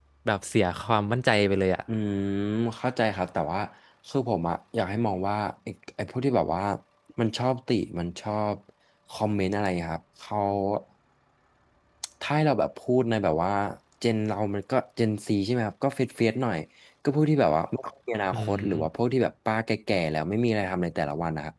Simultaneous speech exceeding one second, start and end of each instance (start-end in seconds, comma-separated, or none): none